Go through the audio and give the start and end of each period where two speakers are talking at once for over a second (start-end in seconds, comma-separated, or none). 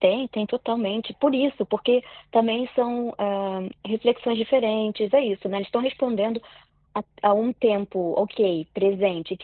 none